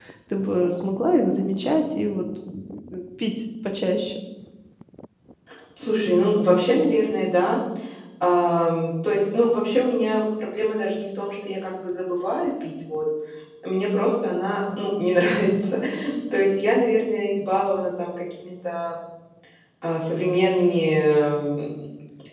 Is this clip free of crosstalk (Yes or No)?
Yes